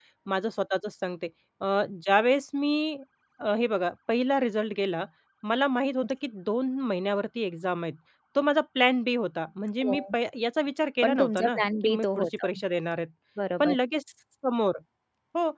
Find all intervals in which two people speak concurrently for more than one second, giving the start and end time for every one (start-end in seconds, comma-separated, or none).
11.0-12.5